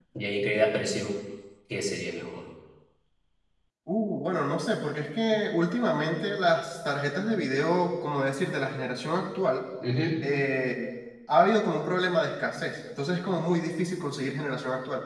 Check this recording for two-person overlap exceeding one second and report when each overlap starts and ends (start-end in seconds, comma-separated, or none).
none